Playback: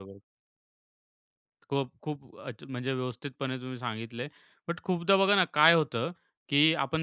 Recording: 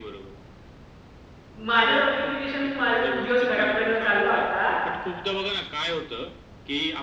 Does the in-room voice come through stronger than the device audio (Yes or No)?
Yes